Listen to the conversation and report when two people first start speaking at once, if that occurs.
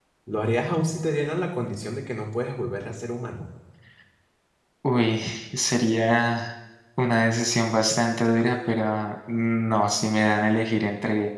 none

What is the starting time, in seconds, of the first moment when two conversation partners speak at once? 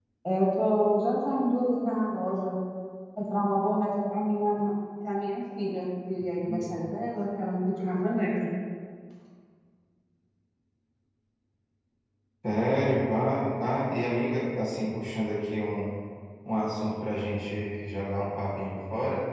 none

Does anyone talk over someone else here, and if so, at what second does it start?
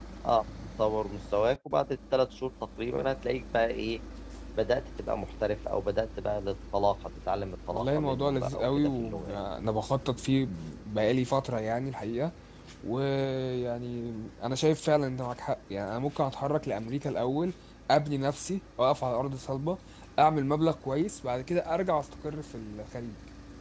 8 s

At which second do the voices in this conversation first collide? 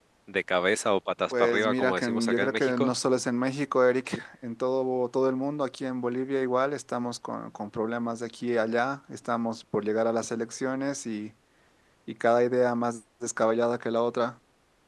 1 s

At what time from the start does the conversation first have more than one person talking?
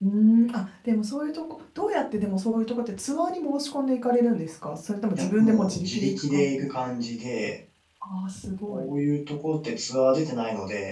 5 s

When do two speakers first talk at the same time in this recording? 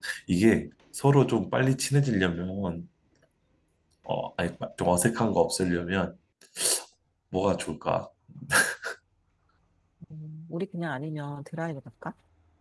none

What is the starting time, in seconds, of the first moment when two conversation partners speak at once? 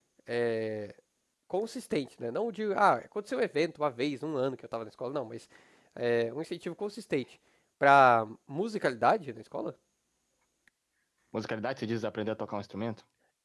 none

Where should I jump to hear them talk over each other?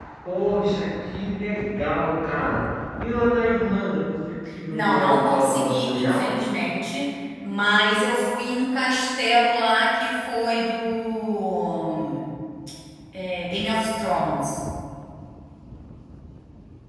5 s

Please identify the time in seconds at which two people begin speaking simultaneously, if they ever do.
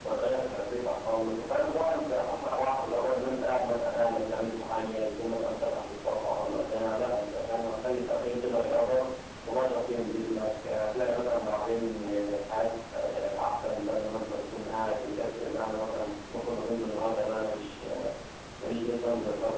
none

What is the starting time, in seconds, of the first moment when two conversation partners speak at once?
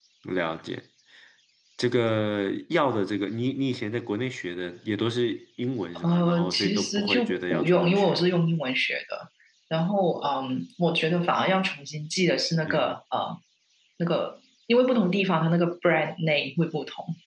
6 s

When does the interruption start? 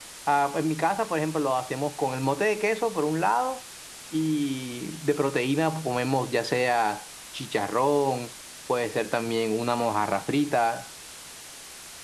none

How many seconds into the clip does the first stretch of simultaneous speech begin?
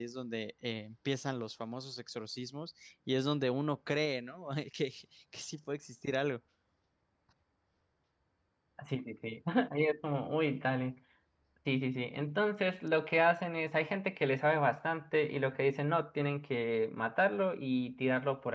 none

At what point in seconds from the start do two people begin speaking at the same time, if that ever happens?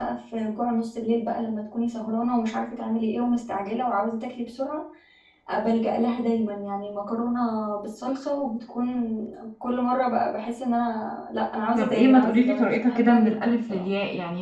12 s

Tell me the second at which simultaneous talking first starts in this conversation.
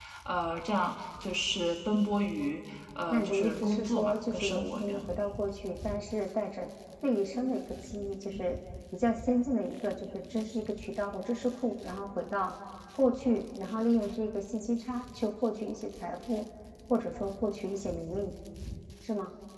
3 s

